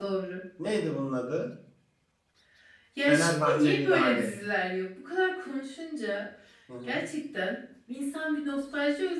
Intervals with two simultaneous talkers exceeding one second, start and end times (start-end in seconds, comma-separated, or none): 3.0-4.3